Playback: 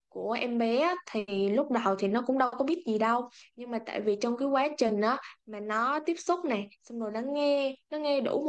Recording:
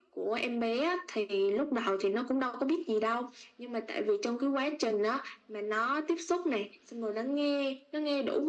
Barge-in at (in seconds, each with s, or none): none